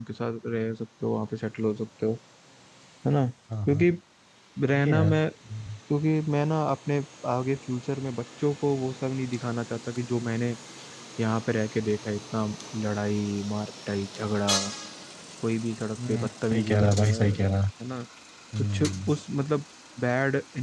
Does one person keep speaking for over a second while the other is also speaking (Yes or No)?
Yes